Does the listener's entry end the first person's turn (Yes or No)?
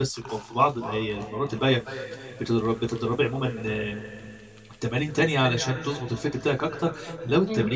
No